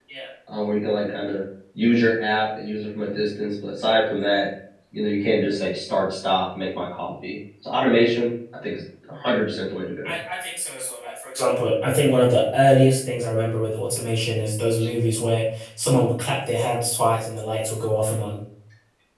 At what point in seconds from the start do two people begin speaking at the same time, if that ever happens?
none

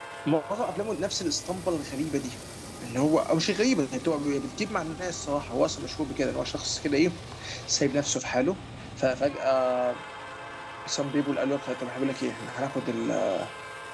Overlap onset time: none

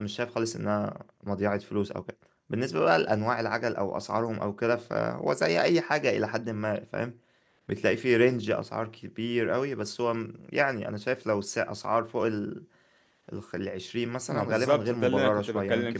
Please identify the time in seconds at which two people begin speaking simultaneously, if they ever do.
14.3 s

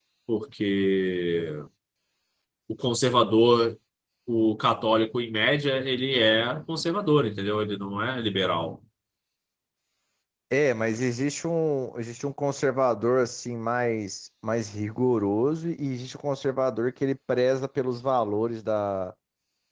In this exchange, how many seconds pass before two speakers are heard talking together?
none

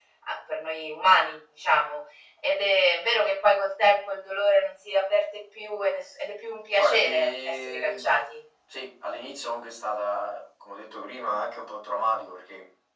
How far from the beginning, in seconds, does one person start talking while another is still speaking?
6.8 s

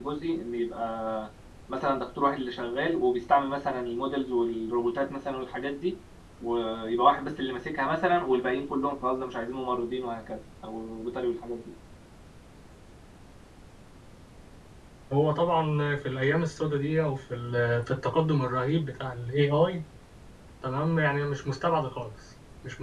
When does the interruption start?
none

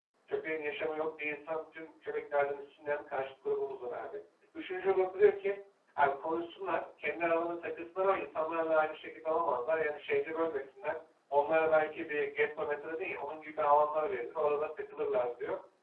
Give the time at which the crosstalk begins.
none

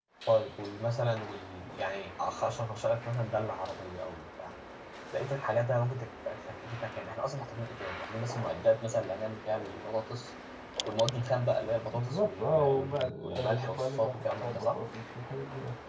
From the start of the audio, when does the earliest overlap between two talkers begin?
11.9 s

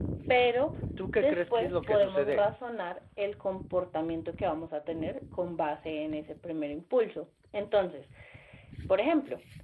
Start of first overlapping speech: 1.1 s

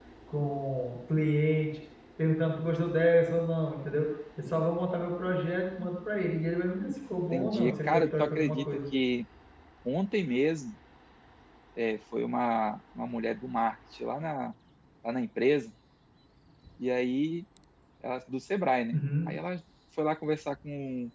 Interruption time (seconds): 7.3 s

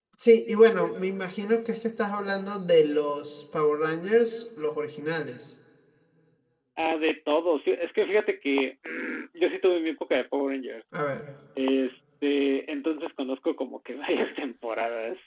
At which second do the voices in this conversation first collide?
none

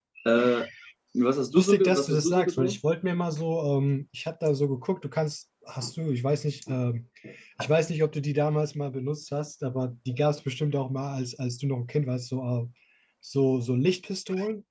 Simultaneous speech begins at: 1.5 s

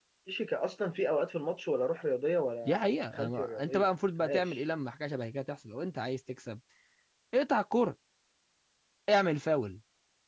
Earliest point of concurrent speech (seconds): 2.6 s

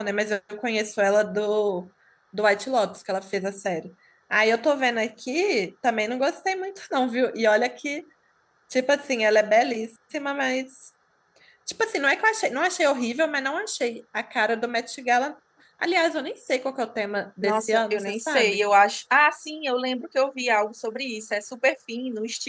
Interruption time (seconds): 17.4 s

